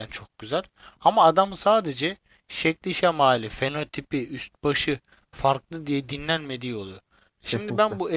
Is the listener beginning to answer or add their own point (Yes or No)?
No